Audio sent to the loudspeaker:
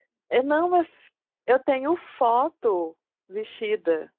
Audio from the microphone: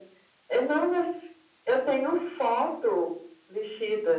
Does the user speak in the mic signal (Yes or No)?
No